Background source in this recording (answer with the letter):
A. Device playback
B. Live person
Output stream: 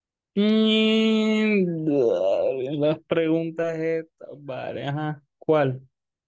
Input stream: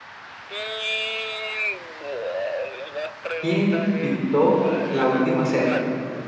A